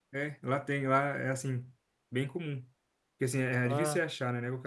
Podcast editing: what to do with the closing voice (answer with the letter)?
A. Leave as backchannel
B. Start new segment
A